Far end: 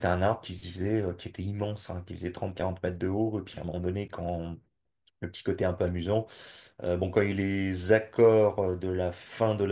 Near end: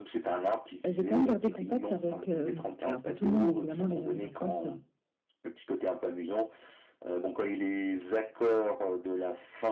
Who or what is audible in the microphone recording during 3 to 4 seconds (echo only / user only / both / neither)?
both